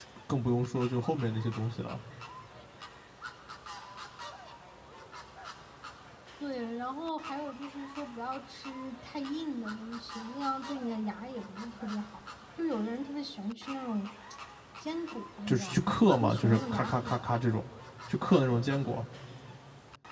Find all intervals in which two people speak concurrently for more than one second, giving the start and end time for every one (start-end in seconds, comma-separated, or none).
15.5-17.1